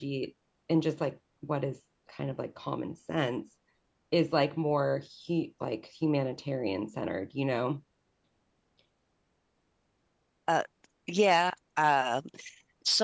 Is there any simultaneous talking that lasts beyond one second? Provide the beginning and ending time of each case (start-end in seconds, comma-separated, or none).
none